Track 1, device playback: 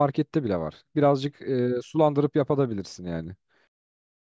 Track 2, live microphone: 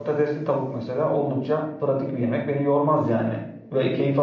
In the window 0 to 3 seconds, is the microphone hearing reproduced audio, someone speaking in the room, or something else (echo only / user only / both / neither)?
user only